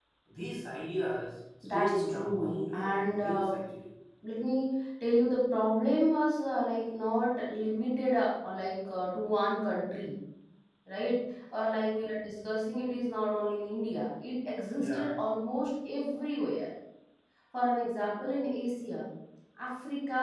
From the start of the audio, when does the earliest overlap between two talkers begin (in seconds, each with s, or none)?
1.6 s